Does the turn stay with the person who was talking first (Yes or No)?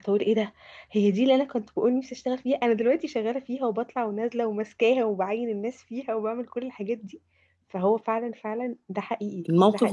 No